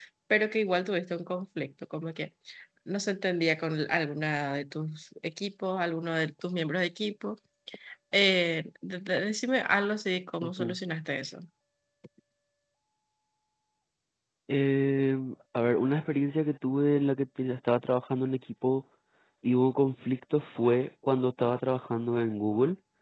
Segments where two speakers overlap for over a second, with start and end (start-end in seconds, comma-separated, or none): none